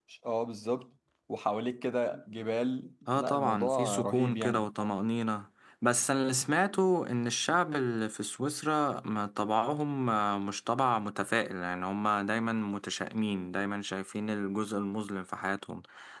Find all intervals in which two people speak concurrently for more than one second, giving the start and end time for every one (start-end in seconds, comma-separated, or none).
3.2-4.7